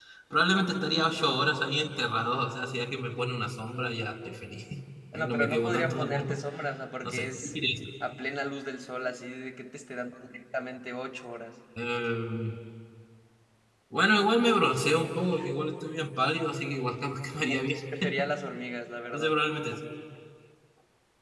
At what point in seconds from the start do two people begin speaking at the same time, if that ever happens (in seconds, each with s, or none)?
5.1 s